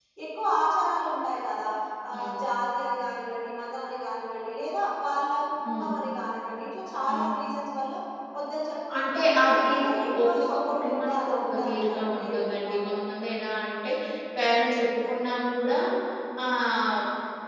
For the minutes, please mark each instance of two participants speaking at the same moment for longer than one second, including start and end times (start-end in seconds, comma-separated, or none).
9.0-13.0